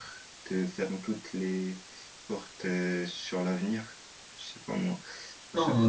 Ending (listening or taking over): taking over